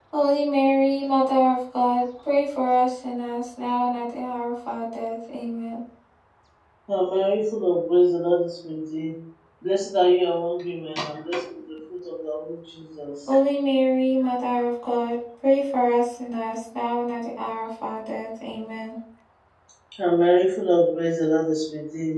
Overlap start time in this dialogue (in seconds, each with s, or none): none